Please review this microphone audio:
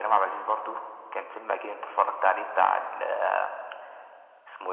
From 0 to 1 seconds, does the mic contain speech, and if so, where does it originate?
echo only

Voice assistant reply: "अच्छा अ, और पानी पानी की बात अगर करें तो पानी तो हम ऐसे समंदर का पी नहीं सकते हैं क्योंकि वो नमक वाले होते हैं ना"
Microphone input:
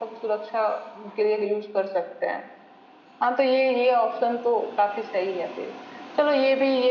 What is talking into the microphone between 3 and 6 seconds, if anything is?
user only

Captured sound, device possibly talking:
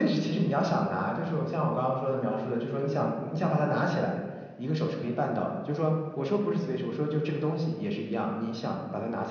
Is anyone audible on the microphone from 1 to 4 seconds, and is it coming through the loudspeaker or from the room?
echo only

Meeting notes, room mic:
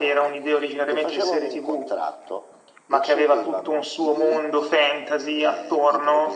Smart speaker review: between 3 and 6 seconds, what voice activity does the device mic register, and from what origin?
echo only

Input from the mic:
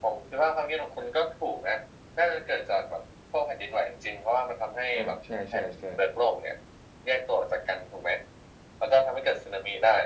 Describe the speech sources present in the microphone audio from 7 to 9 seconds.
echo only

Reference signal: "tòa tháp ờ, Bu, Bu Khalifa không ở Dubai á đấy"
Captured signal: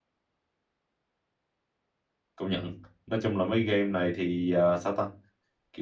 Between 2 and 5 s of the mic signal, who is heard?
user only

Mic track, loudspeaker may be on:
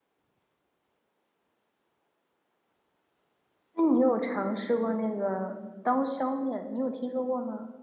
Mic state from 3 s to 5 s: user only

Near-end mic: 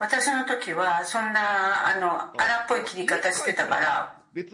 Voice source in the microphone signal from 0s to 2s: echo only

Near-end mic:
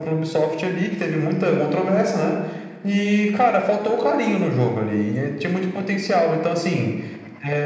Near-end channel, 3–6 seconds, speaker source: echo only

